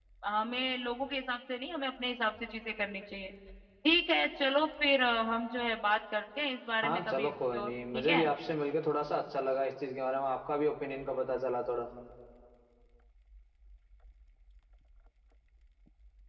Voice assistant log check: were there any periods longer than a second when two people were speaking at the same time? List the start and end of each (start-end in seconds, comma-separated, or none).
6.8-8.2